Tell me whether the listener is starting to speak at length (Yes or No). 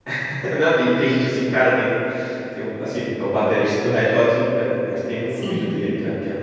No